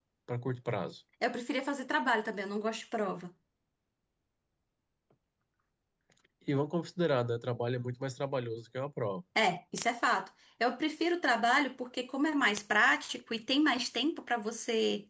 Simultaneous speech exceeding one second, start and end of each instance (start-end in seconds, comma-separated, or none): none